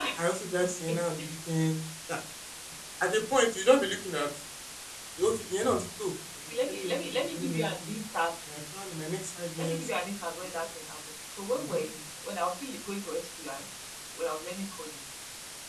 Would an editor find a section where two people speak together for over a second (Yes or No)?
Yes